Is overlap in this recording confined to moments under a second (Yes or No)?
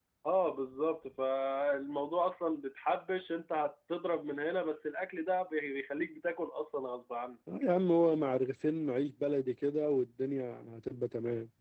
Yes